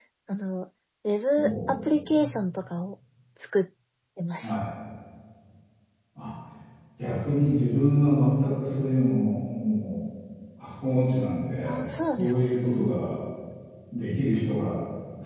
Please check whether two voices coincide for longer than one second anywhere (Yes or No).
Yes